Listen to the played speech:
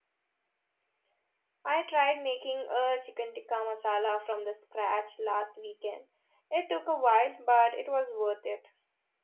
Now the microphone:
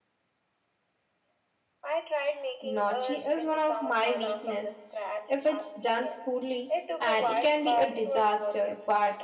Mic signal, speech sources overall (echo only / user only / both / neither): both